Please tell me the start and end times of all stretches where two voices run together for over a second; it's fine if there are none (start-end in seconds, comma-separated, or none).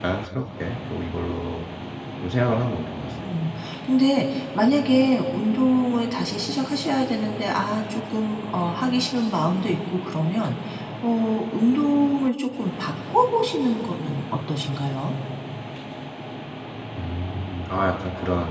none